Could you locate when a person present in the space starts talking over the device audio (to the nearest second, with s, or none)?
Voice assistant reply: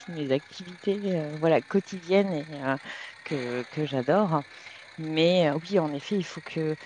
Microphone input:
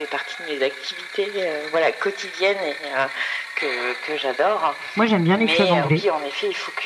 5 s